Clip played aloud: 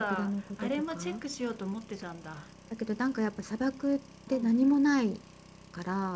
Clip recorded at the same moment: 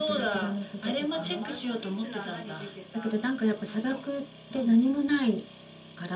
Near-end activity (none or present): present